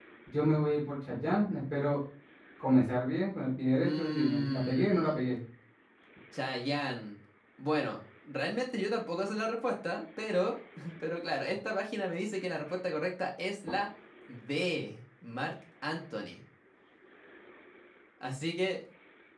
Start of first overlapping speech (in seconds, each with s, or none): 3.8 s